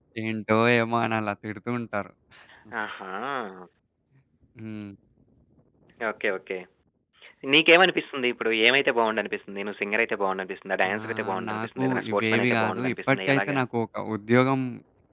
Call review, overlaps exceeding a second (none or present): present